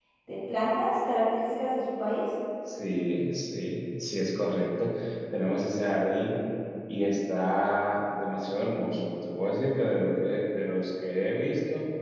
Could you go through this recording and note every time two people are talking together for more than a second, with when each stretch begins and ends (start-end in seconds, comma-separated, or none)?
none